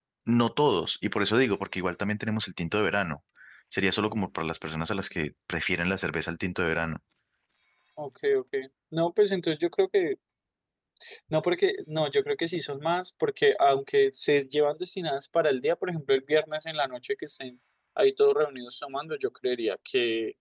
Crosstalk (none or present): none